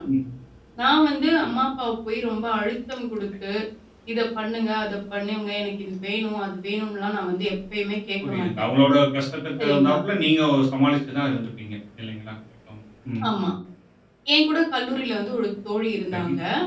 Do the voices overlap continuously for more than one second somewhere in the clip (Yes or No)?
No